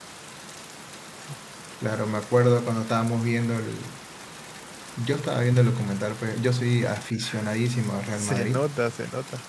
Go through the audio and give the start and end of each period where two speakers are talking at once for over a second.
none

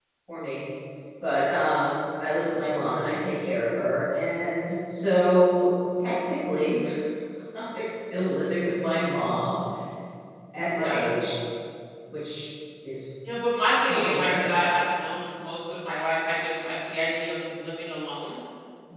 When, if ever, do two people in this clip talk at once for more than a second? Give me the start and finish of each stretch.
none

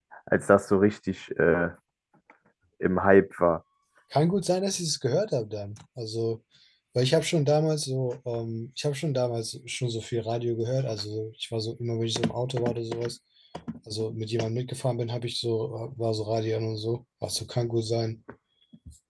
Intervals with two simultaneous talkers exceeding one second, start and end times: none

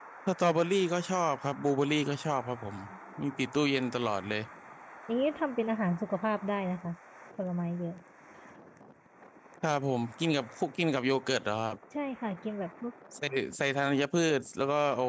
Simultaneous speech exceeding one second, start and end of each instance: none

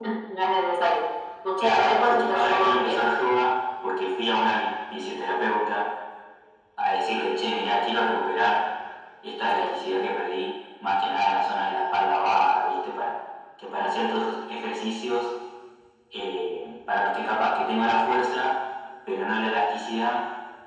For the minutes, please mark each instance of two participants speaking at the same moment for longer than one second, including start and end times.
1.6-3.1

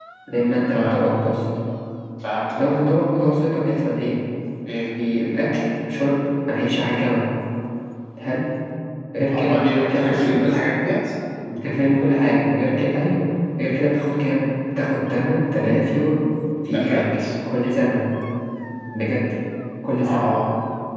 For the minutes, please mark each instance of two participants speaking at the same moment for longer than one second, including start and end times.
9.3-10.5

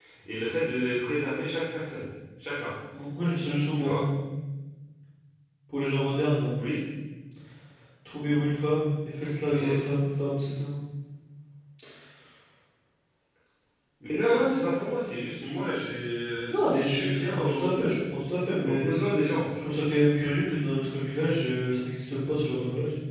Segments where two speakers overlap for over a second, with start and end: 16.5-17.7

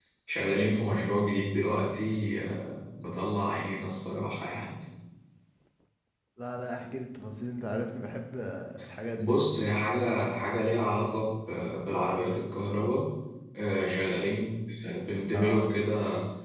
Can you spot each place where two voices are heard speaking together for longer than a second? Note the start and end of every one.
none

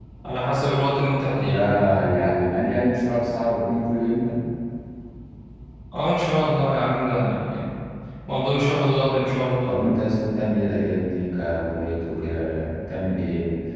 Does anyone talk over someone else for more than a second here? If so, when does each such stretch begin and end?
none

